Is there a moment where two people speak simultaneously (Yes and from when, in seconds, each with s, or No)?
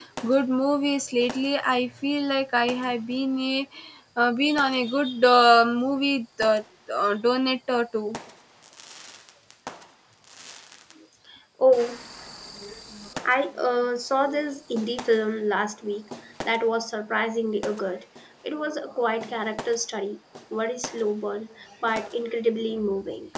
No